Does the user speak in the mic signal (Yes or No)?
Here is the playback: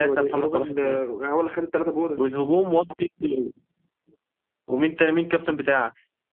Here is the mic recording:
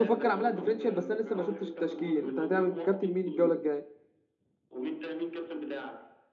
Yes